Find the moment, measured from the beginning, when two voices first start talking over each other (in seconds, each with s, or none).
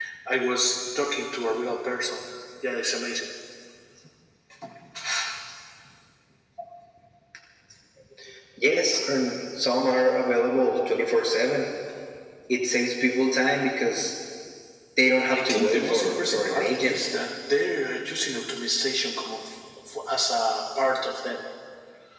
15.3 s